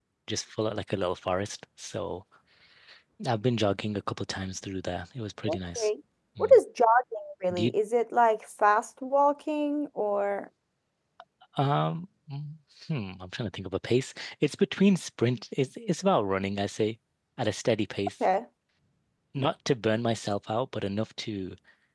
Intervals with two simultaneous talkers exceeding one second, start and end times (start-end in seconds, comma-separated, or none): none